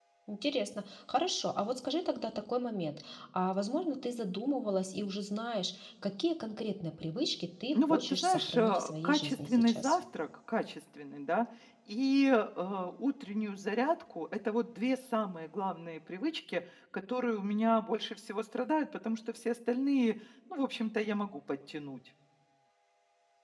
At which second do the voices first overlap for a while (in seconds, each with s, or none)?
7.7 s